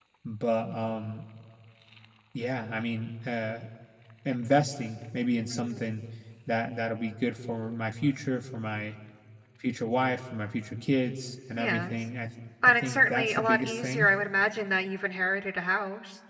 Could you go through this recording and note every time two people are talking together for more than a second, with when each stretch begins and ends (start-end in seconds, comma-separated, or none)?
12.7-14.1